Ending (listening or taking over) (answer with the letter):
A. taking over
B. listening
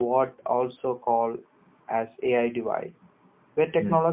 B